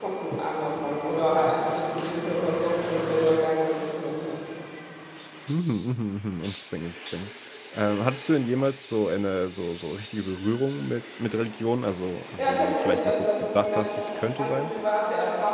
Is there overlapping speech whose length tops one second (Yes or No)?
Yes